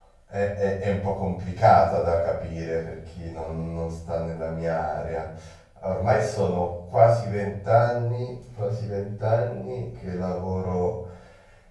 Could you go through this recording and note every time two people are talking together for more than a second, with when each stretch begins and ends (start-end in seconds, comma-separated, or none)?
none